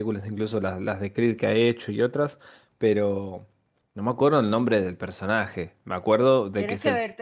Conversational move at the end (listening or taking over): taking over